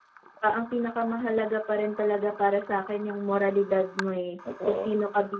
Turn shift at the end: No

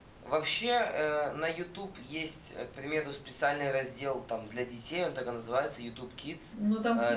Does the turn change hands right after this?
Yes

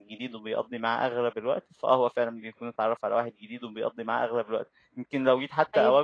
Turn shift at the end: No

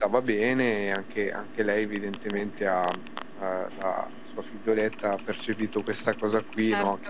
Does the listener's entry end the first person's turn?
No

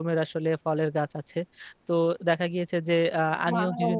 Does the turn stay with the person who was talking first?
Yes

